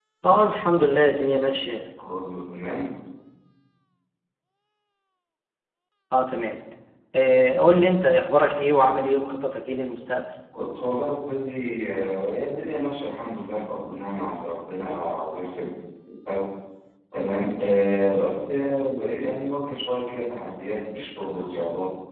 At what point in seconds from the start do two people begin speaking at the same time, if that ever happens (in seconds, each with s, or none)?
none